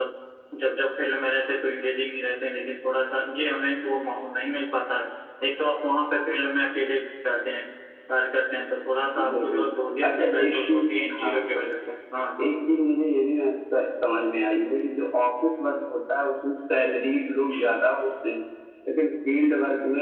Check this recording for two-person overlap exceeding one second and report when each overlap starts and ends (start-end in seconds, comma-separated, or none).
10.1-11.6